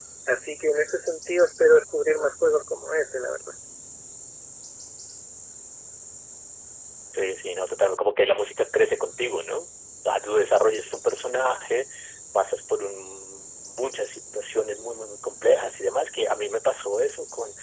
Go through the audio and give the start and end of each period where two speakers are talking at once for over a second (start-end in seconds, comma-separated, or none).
none